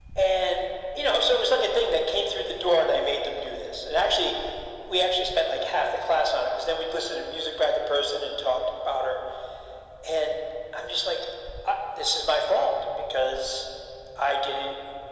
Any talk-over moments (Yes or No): No